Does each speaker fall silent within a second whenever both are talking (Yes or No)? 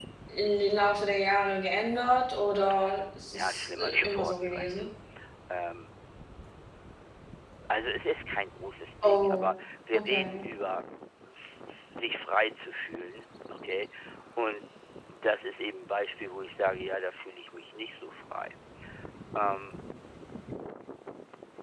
No